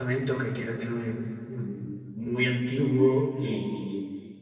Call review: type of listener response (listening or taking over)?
listening